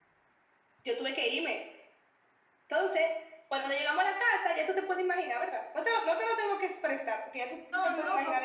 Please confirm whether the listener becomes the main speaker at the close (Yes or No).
Yes